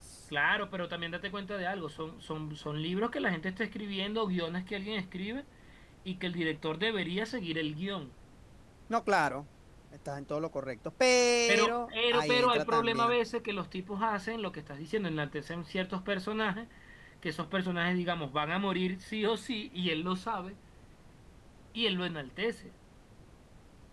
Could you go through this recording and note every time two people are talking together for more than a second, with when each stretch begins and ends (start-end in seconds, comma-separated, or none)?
11.5-13.2